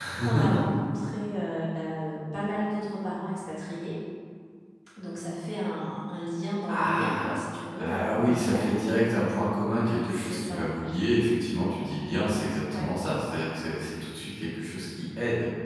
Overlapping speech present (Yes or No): Yes